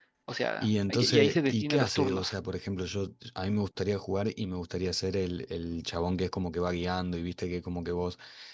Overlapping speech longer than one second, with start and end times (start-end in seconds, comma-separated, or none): 0.6-2.3